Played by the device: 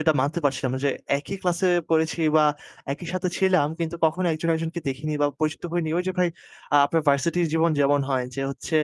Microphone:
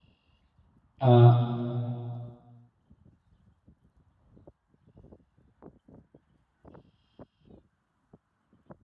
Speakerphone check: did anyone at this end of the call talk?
Yes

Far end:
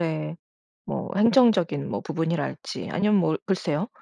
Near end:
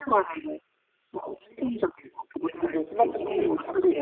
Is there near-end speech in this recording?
Yes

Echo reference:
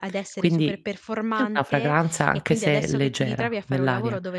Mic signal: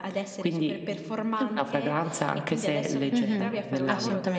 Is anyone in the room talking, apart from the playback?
Yes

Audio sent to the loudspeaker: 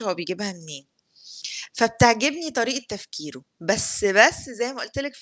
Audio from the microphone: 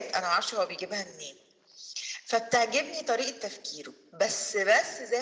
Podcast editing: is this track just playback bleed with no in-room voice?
Yes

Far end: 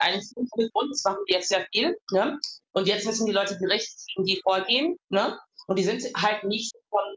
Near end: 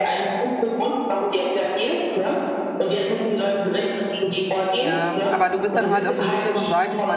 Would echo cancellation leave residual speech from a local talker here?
Yes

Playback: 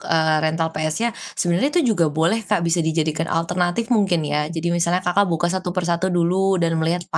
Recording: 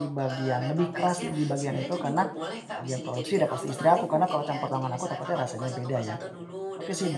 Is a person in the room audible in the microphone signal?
Yes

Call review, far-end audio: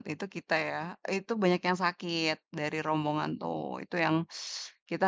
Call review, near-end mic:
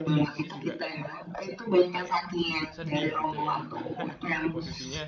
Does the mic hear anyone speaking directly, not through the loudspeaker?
Yes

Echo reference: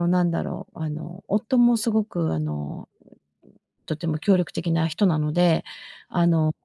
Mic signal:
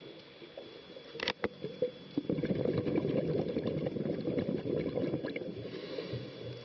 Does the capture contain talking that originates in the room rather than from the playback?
No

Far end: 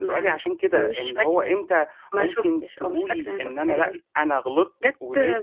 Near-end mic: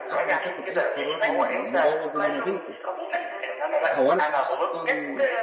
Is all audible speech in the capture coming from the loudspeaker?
No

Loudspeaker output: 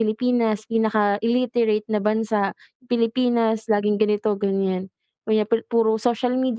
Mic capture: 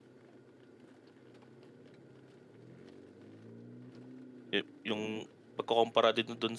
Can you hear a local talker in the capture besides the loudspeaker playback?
Yes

